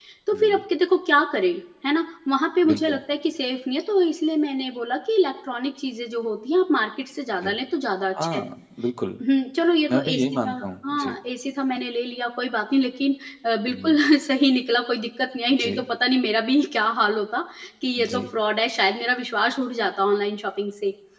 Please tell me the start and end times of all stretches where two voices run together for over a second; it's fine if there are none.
9.9-11.1

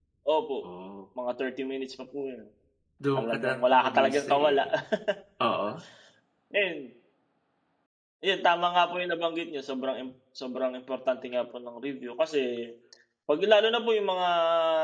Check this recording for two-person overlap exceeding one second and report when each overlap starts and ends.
3.2-4.7

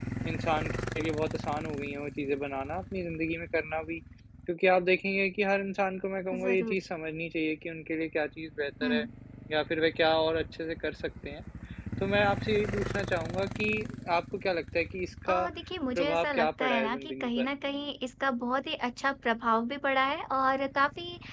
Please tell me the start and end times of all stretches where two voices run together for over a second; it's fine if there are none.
15.9-17.5

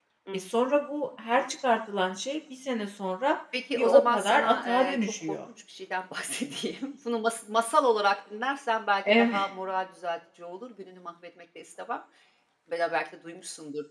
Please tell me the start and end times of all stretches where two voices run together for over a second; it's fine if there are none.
3.8-5.4

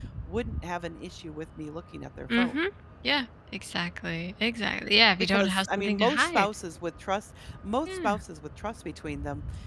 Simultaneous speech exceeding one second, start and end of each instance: 5.2-6.5

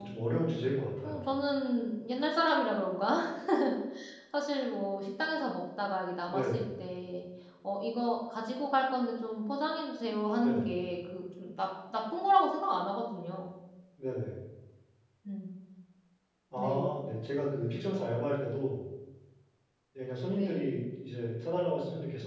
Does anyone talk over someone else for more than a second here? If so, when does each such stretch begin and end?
none

